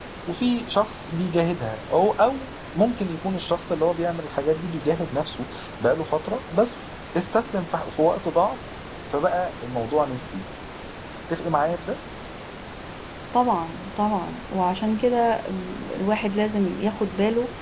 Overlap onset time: none

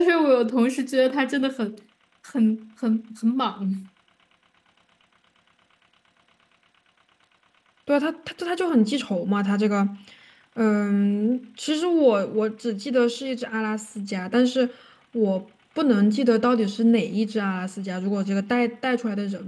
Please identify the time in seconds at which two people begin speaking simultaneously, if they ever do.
none

